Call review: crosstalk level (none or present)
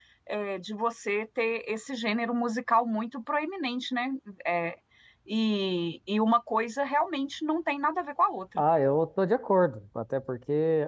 none